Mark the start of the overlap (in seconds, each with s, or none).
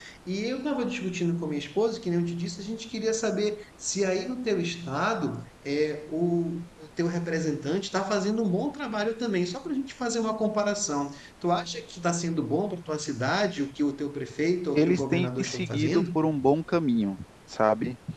14.8 s